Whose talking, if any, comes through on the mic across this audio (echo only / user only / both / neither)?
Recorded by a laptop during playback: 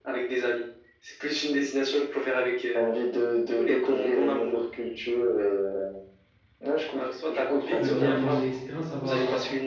both